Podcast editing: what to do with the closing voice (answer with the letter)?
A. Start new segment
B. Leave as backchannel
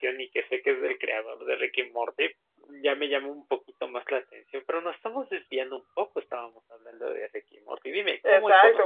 A